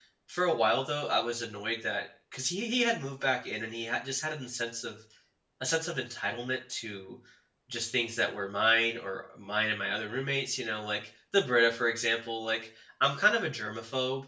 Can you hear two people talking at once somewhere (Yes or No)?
No